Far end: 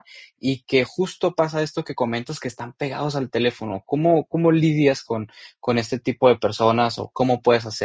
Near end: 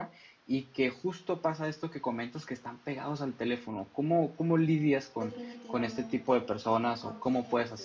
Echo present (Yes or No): Yes